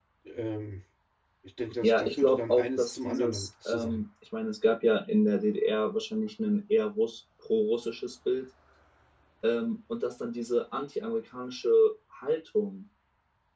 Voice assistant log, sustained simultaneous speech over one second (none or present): present